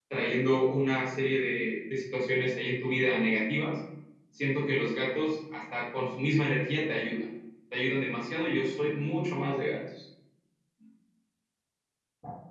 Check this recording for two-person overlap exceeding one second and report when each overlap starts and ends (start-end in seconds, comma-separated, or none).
none